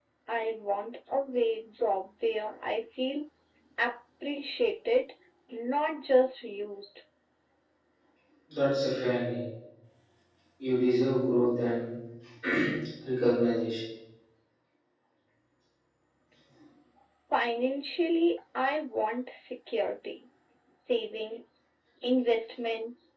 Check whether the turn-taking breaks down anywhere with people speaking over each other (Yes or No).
No